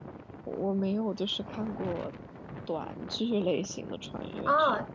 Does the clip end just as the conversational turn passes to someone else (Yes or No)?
Yes